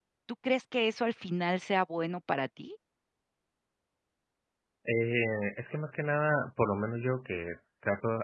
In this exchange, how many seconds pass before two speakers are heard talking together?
none

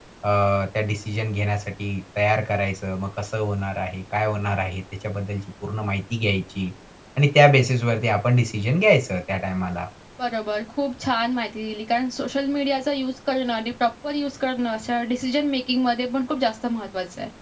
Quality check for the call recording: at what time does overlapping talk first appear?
none

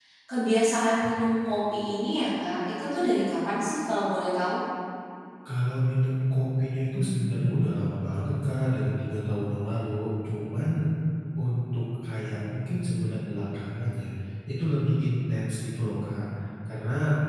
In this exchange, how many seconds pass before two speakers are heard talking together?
none

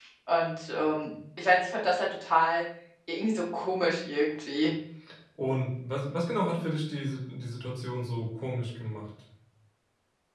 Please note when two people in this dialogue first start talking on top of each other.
none

